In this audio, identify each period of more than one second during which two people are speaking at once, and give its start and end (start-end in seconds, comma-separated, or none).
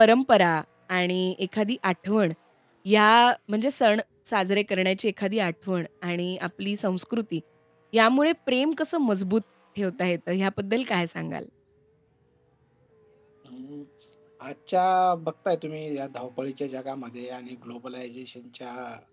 none